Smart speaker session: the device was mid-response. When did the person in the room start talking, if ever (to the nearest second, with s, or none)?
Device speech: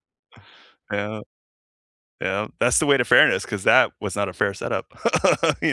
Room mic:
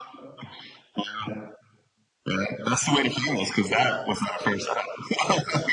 none